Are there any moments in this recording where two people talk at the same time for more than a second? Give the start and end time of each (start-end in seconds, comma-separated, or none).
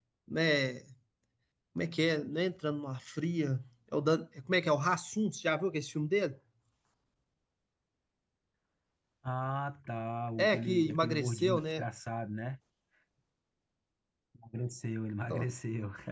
10.4-11.8